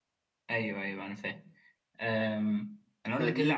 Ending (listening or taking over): listening